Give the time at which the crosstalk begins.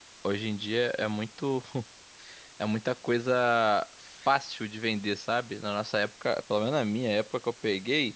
none

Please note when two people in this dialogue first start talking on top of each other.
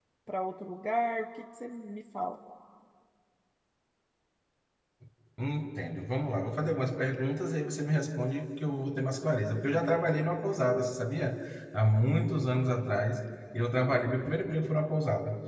none

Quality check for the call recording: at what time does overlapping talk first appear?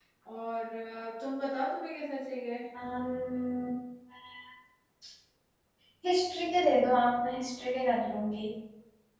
none

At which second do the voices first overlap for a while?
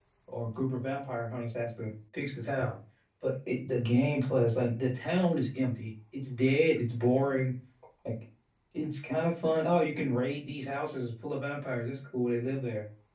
none

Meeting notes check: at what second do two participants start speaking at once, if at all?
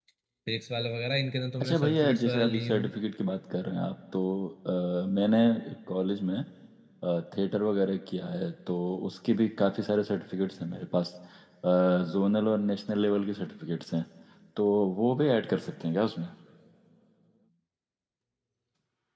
1.6 s

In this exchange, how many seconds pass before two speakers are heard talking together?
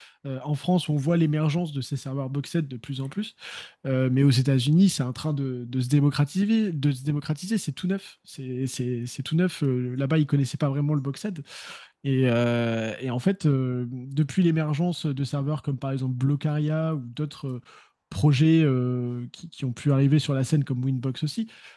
none

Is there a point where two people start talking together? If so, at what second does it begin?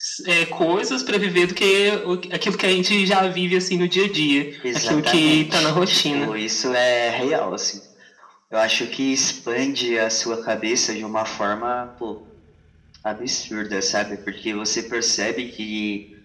4.6 s

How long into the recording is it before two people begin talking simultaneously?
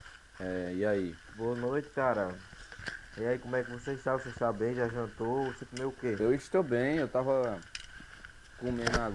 none

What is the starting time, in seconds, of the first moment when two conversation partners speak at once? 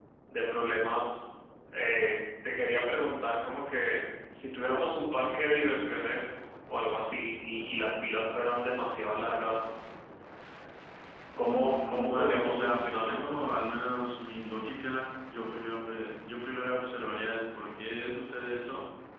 11.4 s

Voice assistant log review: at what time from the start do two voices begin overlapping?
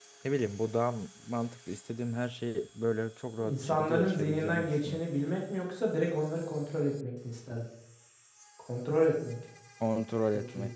3.4 s

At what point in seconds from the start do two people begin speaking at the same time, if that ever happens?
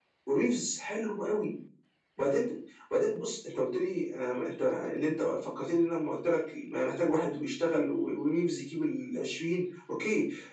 none

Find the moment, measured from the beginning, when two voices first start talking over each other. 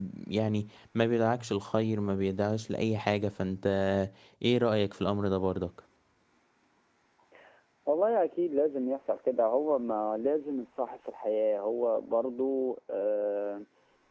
none

